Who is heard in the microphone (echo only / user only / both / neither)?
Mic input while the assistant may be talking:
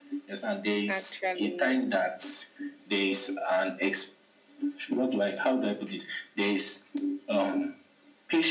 both